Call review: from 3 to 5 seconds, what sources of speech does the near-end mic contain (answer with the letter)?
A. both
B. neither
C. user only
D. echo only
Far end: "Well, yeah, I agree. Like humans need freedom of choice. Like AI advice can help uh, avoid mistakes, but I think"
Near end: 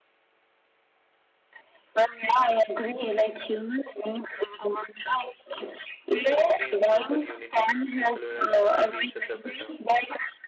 D